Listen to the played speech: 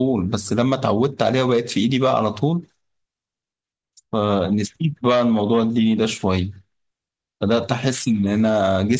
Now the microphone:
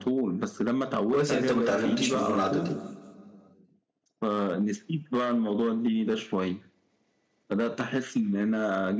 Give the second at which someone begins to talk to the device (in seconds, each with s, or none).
1.1 s